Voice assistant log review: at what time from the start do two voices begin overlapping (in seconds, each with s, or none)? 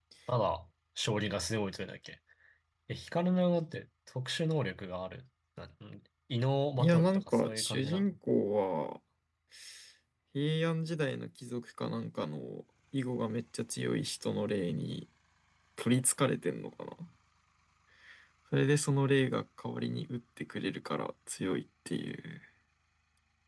6.8 s